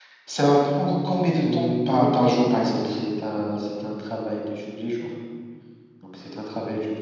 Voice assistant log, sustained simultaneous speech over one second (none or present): present